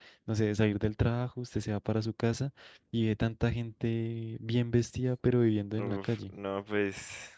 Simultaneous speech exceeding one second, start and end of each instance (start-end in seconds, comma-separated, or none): none